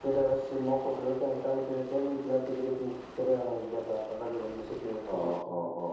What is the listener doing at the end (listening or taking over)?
taking over